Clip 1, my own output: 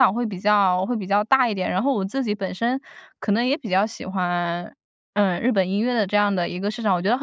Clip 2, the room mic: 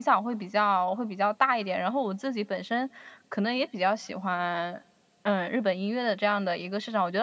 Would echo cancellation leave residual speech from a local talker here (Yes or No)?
No